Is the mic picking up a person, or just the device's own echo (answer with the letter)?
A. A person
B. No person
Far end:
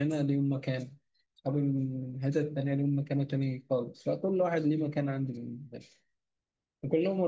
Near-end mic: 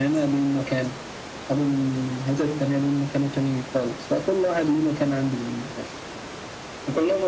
B